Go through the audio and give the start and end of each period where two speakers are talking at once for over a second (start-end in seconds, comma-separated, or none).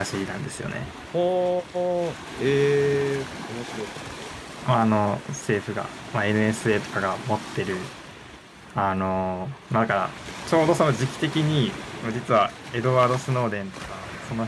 none